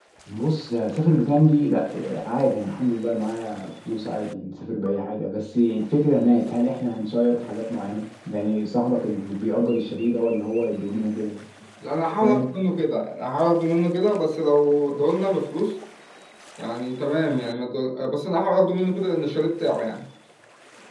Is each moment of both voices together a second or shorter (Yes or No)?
Yes